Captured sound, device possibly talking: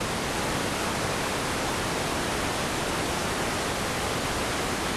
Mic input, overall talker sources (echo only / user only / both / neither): neither